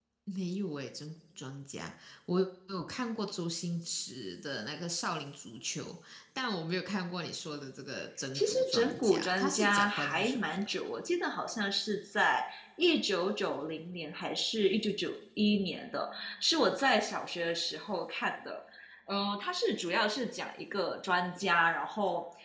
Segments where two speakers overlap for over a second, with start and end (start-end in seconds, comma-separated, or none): 8.3-10.7